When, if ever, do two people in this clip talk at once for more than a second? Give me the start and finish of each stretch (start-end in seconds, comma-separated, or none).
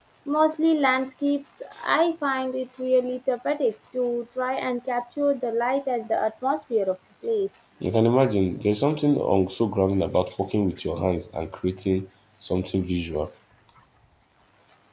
none